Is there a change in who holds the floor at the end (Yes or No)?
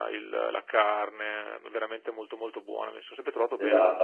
Yes